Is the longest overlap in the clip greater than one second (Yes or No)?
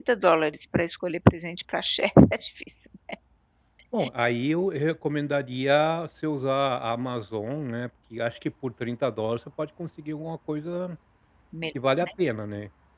No